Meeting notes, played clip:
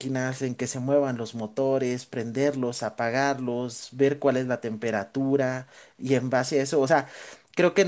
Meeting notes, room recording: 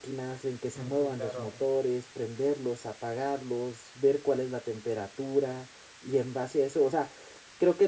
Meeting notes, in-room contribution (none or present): present